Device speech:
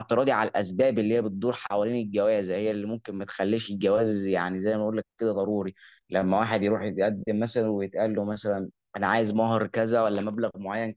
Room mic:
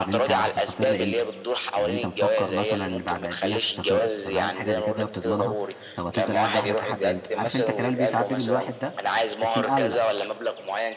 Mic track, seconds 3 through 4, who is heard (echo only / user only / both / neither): both